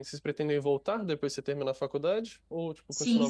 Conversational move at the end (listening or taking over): taking over